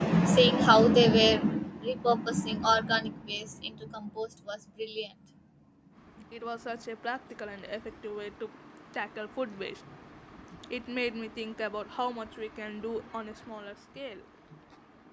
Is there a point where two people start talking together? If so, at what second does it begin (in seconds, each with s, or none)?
none